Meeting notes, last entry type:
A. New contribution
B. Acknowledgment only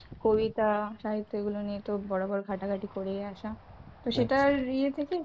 B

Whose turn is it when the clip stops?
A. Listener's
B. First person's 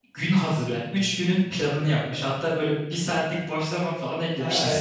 A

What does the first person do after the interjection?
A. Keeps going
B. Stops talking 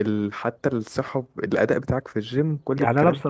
B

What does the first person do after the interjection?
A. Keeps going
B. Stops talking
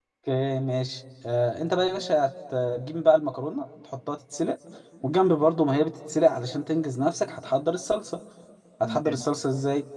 A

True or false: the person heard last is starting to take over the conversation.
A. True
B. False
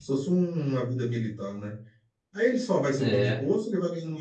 B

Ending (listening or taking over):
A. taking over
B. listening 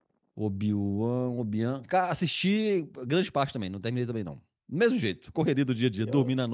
A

